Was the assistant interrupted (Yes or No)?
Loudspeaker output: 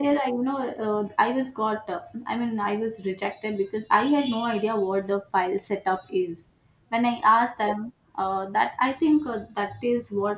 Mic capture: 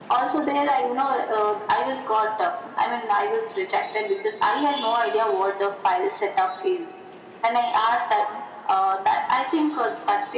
No